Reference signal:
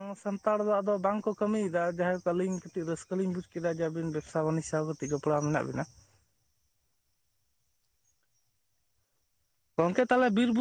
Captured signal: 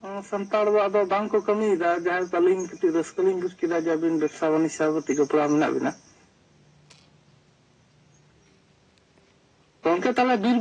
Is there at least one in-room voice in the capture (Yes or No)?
No